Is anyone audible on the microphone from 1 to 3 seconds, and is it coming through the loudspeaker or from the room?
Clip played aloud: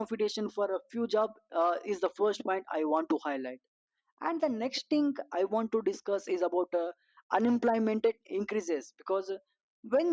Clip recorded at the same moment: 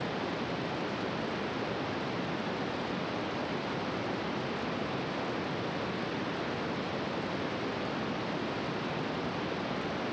neither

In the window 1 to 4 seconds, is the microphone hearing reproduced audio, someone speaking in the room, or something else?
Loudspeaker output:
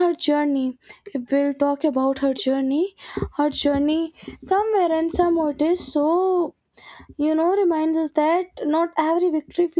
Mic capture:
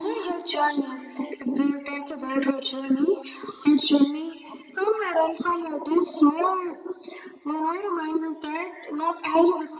echo only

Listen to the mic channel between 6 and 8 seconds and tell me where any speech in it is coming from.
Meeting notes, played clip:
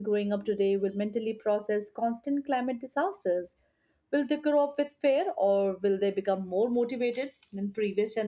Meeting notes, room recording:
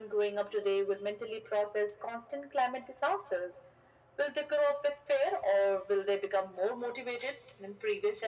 echo only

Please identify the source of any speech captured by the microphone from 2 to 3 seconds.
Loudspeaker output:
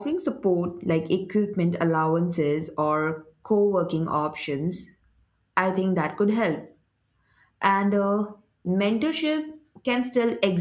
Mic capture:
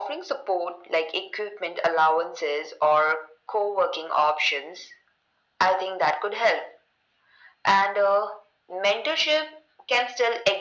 echo only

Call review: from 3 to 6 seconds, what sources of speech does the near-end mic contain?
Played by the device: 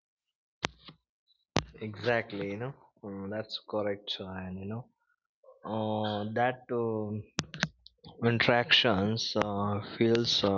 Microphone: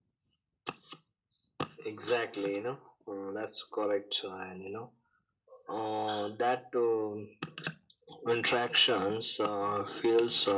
echo only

